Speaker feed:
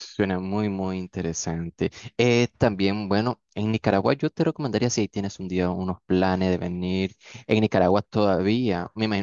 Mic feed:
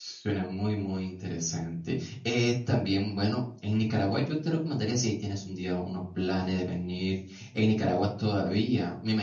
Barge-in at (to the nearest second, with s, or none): none